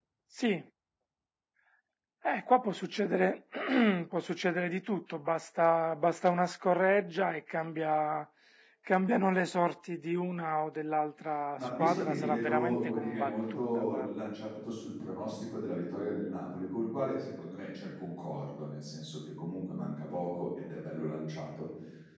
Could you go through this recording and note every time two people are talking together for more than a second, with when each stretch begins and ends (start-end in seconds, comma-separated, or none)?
11.6-14.3